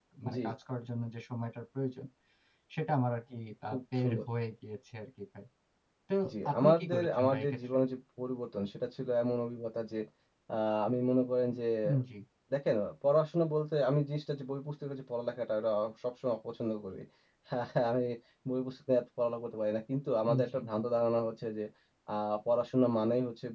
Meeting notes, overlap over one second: present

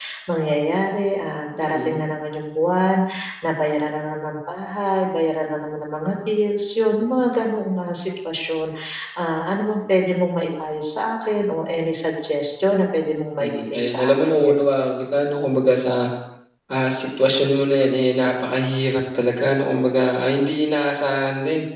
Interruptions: present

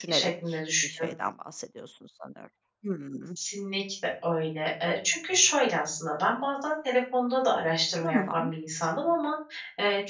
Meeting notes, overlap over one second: none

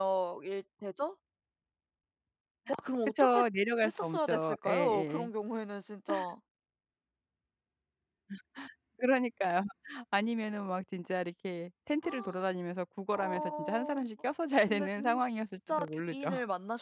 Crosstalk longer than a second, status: present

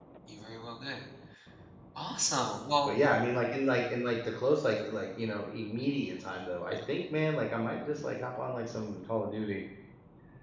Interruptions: none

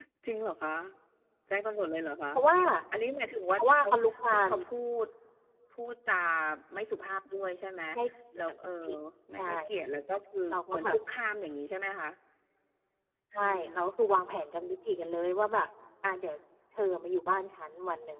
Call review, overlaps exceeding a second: none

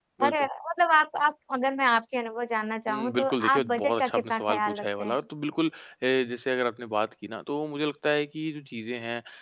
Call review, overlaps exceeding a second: present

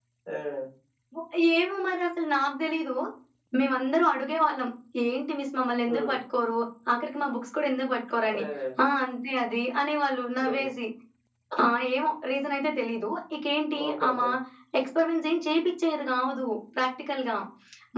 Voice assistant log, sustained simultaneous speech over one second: none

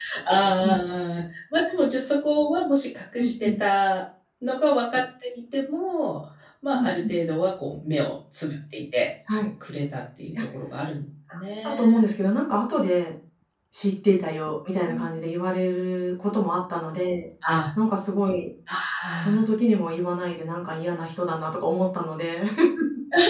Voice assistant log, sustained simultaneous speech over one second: none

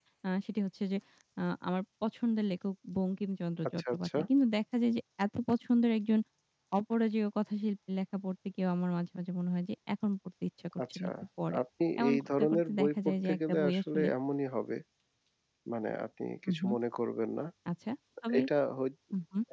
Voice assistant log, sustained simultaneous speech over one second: present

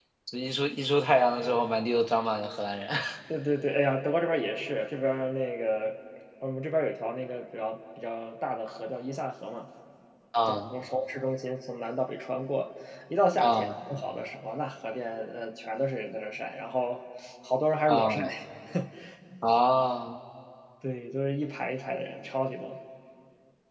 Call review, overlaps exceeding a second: none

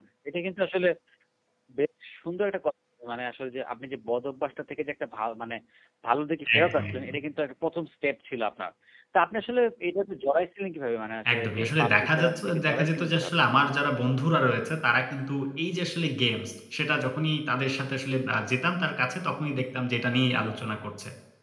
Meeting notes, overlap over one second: present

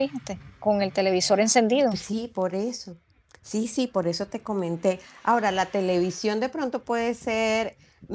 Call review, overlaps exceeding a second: none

